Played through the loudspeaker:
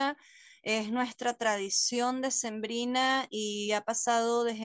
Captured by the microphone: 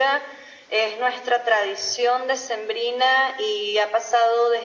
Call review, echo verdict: present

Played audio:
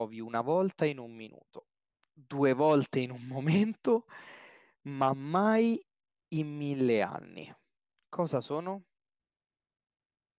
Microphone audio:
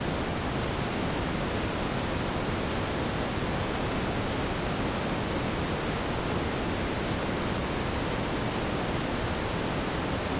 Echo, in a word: none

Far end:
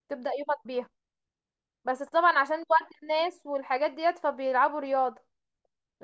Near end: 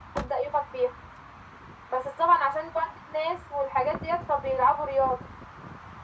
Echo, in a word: present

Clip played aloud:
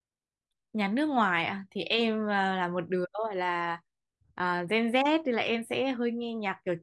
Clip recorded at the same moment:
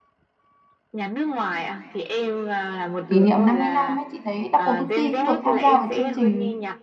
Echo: present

